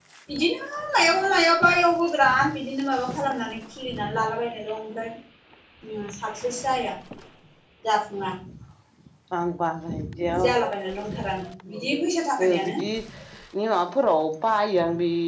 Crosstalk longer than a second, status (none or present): none